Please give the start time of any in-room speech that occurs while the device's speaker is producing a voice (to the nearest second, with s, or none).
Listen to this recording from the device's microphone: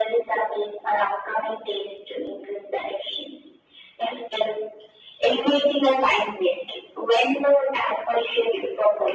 none